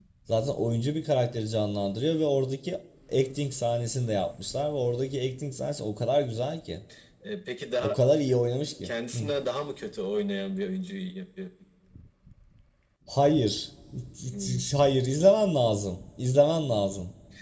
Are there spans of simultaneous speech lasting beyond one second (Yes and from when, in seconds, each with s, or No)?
No